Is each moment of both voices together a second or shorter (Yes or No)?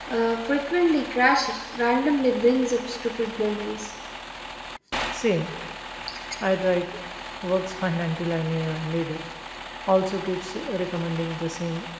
Yes